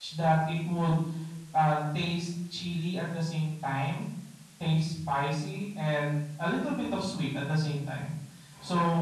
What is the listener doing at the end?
listening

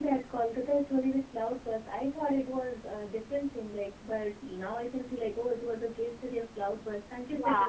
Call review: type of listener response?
taking over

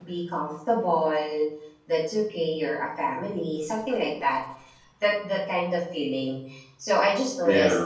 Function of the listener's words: listening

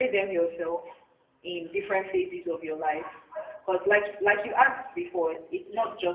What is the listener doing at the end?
listening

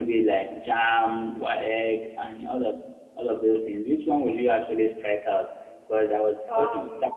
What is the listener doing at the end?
listening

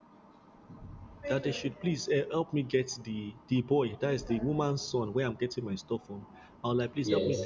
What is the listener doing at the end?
listening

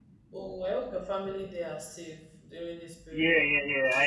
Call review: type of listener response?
taking over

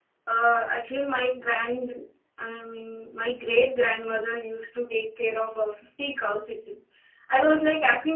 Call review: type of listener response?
listening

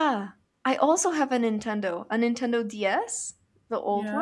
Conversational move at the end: taking over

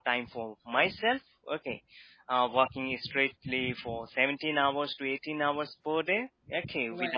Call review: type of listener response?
listening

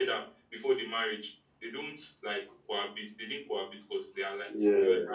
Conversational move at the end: listening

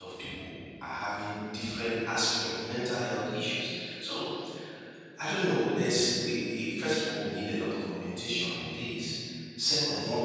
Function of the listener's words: listening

